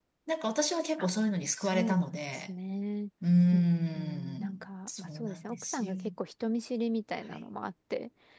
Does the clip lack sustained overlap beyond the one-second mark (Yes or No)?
No